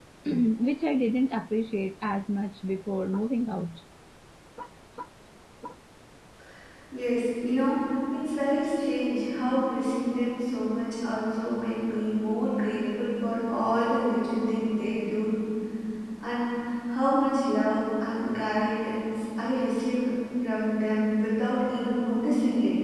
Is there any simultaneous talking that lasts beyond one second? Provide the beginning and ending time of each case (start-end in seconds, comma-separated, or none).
none